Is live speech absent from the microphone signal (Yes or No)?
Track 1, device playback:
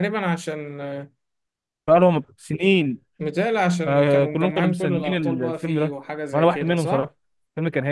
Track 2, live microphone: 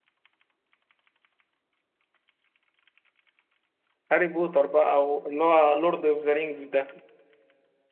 No